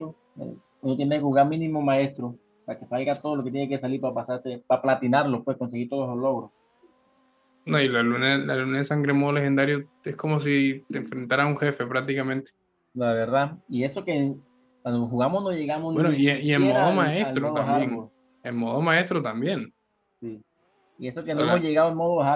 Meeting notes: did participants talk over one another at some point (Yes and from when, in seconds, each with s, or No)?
Yes, from 15.9 s